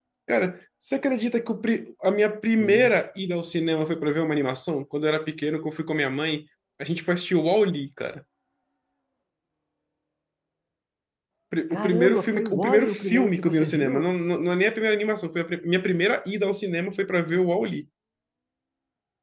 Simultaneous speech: Yes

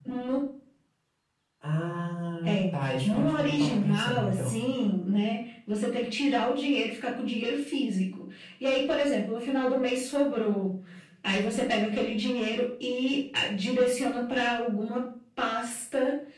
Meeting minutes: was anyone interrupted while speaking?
Yes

